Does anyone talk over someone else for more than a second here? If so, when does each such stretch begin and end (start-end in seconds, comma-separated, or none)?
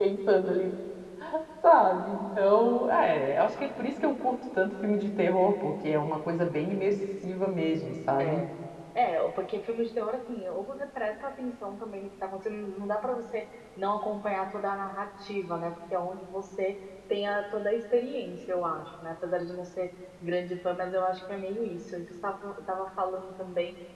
none